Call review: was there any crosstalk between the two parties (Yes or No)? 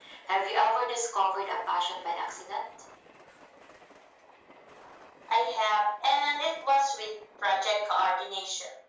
No